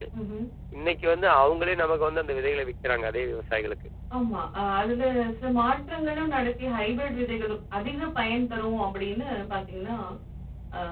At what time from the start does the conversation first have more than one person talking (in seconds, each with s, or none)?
none